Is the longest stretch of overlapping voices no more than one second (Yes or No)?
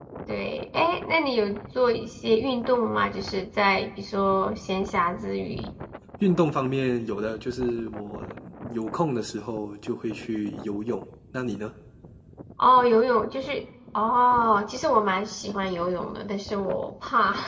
Yes